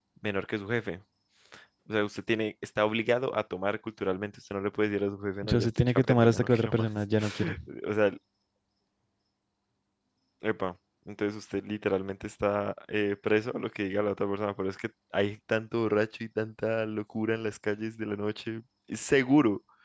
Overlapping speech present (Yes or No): Yes